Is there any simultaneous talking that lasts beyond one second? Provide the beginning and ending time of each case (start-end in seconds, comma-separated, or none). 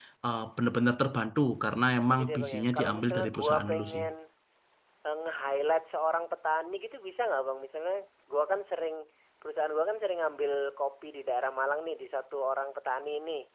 2.1-4.0